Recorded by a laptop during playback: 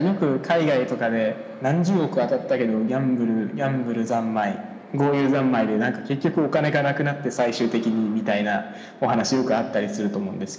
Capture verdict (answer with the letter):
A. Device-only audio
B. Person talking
A